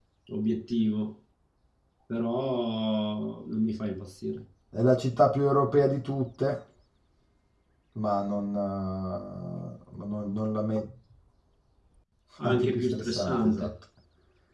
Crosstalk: present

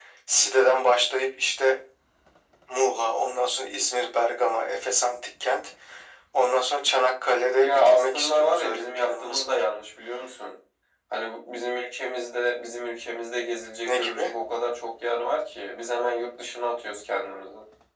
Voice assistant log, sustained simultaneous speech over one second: present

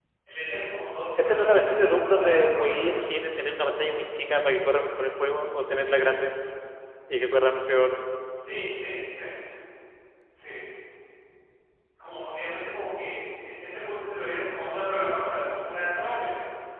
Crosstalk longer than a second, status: present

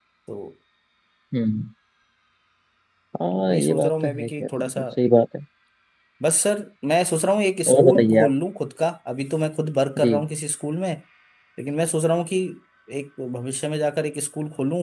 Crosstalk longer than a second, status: present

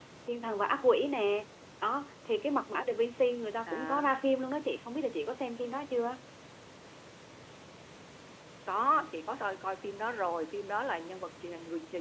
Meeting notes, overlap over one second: none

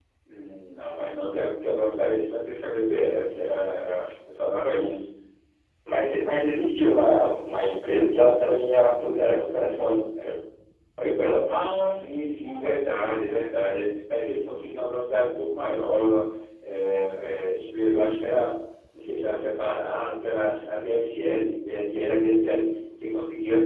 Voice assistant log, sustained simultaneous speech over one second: none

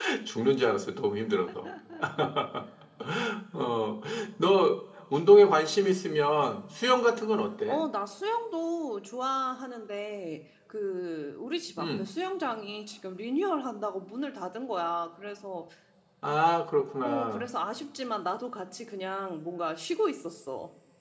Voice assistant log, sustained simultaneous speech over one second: none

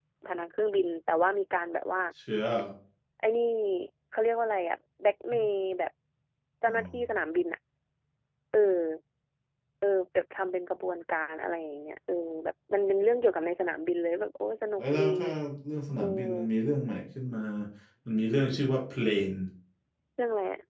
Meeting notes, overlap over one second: none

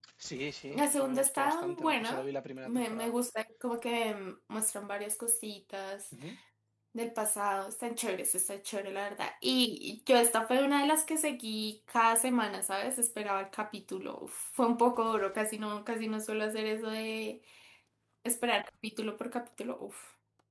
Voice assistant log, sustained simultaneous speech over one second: present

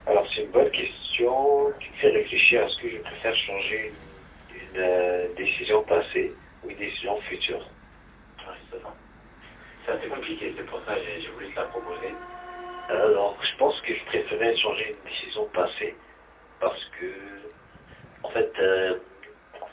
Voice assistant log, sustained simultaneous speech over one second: none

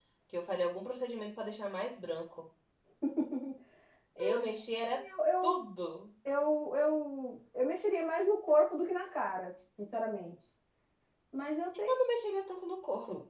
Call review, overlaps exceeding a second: none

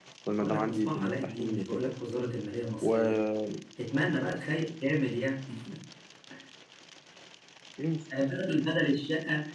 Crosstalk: present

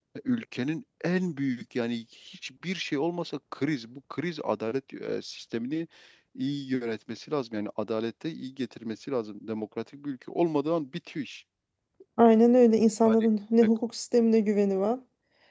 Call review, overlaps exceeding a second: none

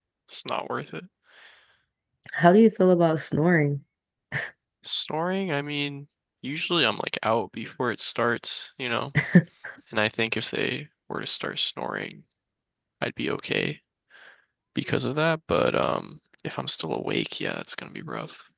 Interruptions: none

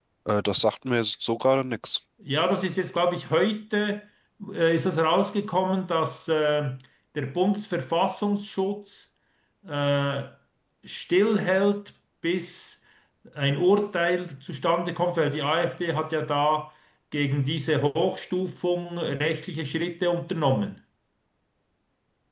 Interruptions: none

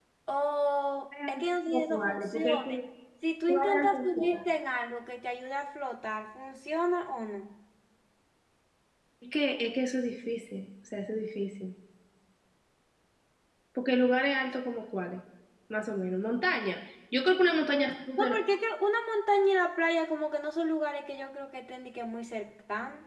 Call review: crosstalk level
present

